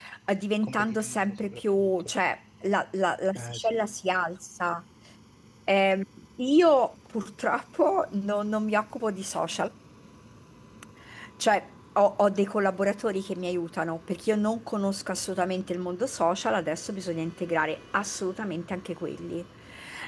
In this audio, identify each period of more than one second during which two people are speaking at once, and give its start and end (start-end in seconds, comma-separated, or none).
0.6-2.1